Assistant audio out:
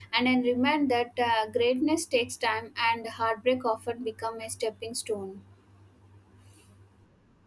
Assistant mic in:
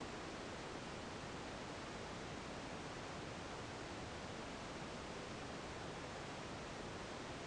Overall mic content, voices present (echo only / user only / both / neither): neither